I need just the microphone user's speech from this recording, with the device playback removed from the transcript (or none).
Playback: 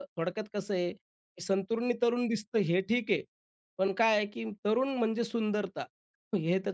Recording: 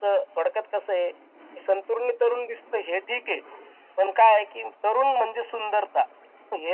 none